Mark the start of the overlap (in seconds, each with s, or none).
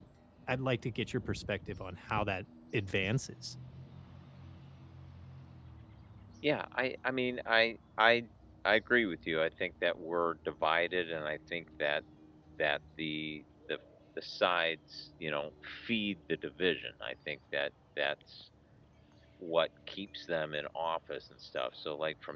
none